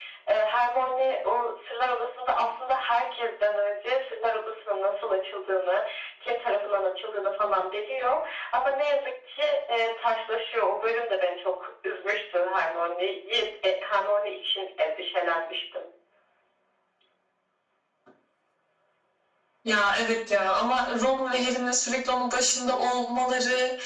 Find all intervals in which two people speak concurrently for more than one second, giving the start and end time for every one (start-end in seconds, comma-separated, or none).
none